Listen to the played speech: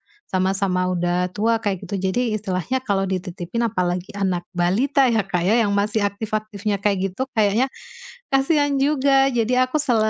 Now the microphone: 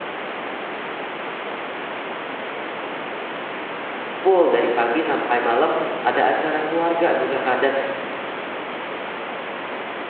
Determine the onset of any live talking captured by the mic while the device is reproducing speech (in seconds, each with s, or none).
4.2 s